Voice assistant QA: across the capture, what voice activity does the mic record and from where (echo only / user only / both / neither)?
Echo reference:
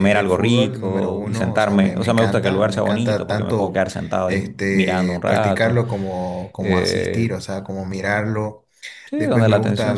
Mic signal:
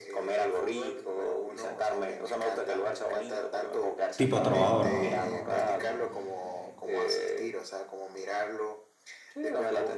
both